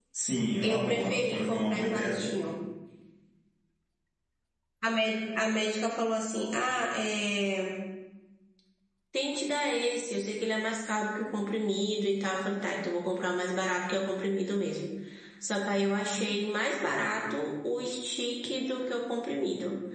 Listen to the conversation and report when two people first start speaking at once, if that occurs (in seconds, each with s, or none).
0.6 s